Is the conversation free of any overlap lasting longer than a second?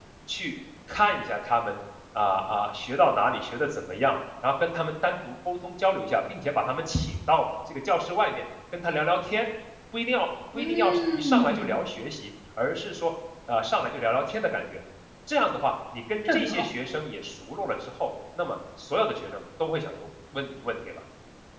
No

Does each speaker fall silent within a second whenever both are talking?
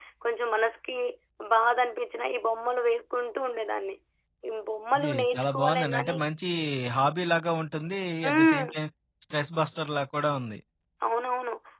No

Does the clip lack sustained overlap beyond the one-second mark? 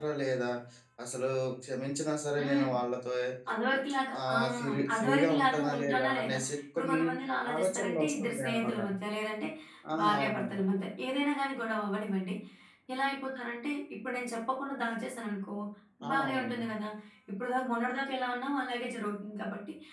No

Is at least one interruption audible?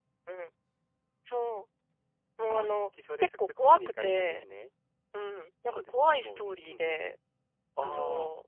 Yes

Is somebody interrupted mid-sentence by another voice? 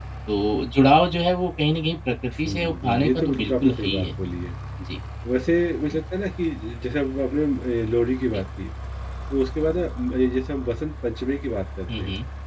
Yes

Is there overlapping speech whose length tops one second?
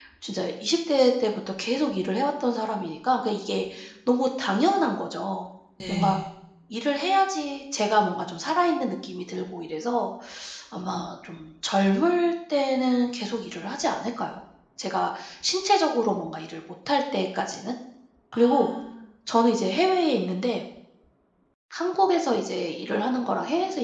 No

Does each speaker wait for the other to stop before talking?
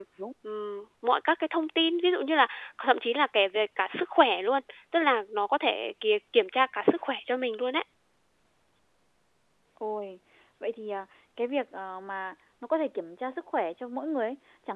Yes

